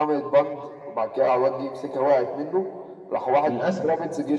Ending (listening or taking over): listening